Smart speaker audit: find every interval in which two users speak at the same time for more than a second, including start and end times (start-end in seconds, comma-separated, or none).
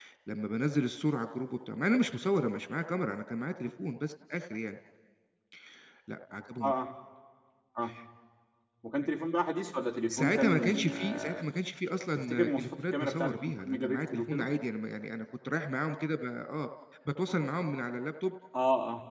10.1-11.4, 12.2-14.5